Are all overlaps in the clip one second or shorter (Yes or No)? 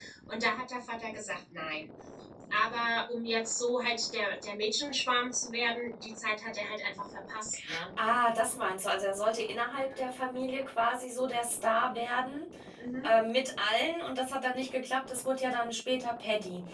Yes